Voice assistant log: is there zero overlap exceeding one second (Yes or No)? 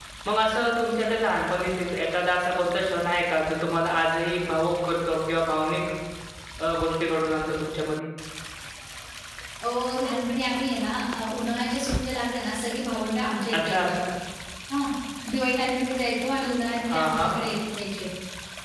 Yes